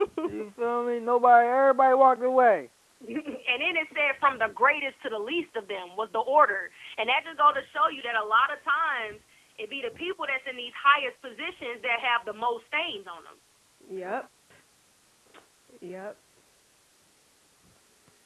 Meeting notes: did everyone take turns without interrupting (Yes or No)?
Yes